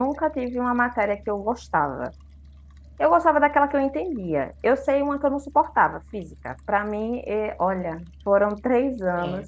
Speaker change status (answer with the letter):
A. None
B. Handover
A